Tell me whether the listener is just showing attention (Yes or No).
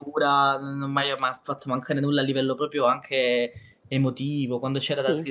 Yes